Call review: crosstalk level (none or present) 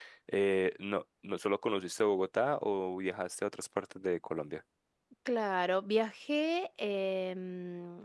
none